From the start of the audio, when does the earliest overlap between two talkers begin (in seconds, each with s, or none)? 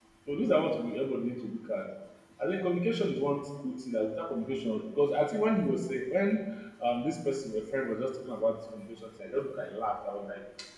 none